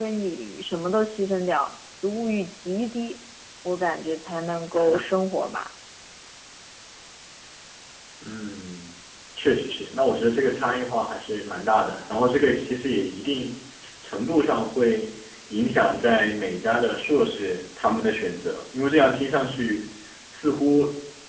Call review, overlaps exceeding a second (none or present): none